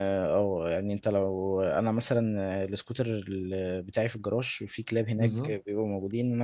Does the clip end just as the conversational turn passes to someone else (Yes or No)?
No